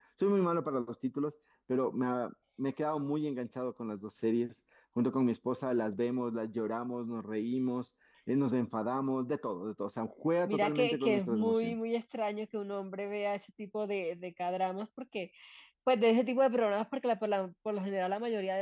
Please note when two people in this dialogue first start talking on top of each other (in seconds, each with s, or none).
10.4 s